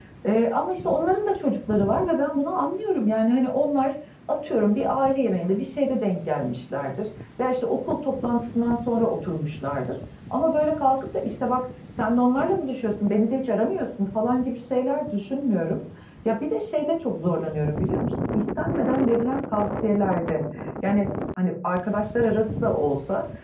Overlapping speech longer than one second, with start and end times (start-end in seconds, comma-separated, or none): none